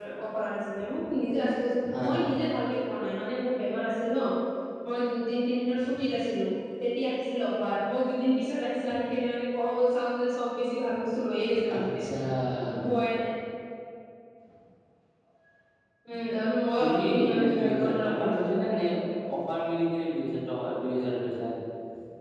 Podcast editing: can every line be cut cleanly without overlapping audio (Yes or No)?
No